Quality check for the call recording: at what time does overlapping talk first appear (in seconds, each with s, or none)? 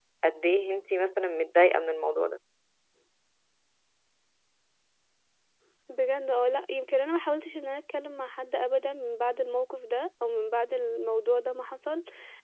none